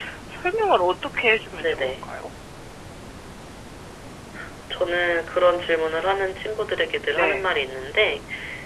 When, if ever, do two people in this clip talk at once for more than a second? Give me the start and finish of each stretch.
none

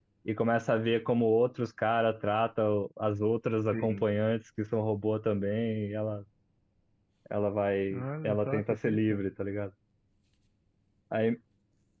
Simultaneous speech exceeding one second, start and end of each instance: 7.9-9.2

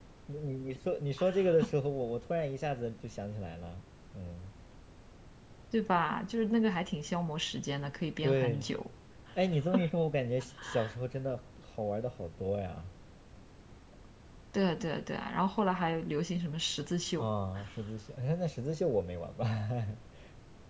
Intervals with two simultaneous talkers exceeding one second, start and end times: none

